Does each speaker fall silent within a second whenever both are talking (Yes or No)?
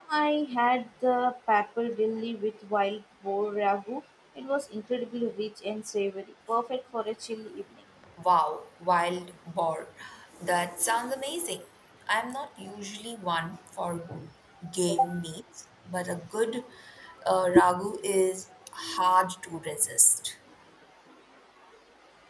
Yes